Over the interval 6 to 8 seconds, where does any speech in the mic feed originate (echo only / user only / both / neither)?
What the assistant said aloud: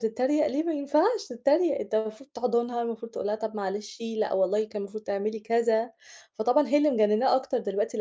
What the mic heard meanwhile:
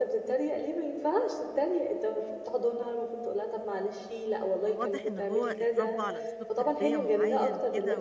both